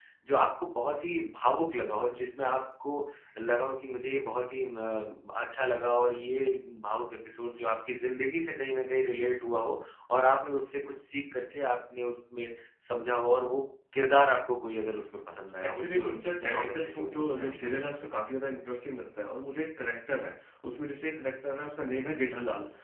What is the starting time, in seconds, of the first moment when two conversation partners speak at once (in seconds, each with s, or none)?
15.6 s